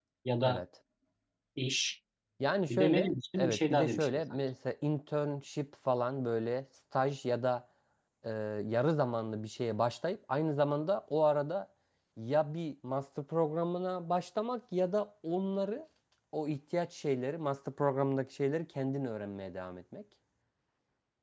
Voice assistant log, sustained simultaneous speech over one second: present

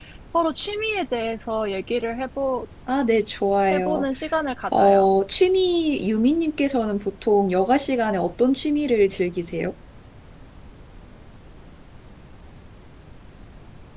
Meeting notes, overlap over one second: none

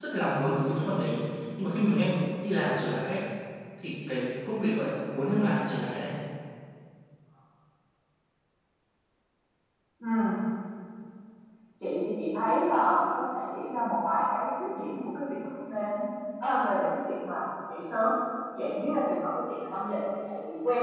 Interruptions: none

